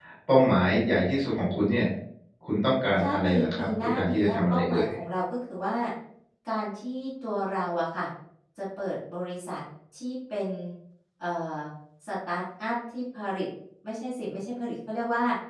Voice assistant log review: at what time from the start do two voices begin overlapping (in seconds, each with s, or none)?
3.0 s